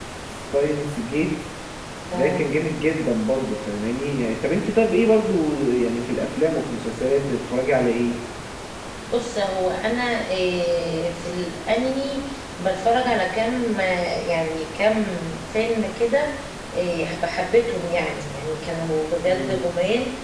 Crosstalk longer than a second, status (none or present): none